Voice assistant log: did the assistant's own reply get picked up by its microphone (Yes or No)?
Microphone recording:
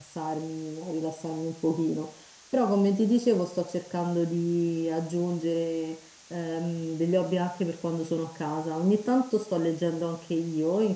No